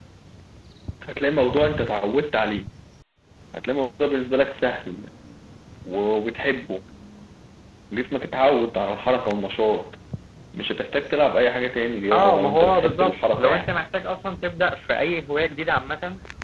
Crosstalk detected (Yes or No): Yes